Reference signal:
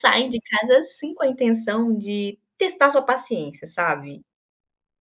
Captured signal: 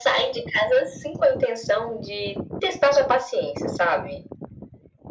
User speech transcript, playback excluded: none

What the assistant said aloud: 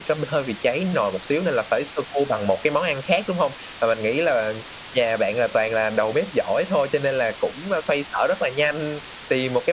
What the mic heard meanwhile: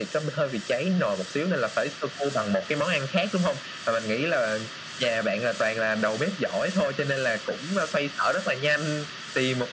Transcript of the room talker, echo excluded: none

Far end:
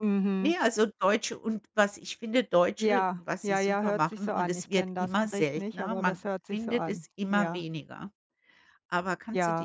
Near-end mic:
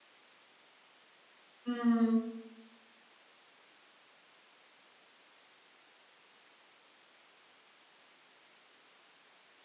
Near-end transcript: Mhm.

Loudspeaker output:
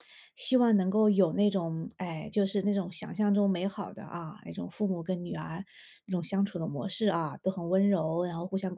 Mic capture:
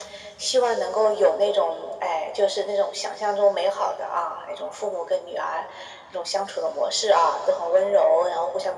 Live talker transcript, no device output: none

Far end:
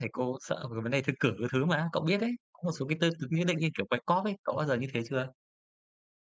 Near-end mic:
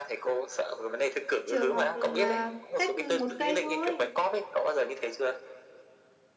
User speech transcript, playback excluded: Trường học, ừm, à, cách, ừm, 1 cây thôi.

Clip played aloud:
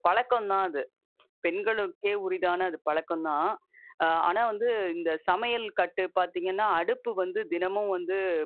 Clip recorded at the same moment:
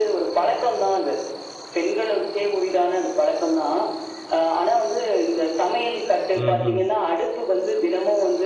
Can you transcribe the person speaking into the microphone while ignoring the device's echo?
ம்ஹும்.

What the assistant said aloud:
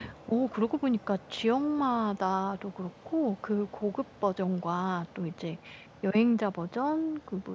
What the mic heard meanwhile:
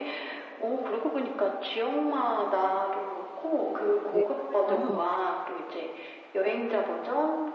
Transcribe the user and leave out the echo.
네 그래서

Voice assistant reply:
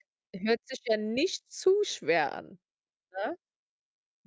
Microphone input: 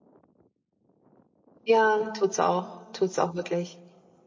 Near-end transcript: Ja, tut's auch tut's auch wirklich.

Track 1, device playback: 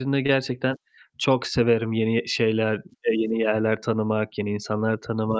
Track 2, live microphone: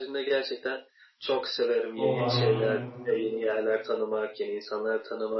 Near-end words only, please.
O, harika.

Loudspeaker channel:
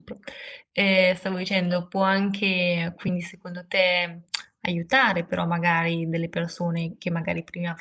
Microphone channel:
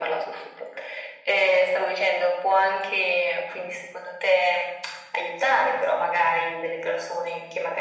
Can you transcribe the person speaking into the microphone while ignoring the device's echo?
none

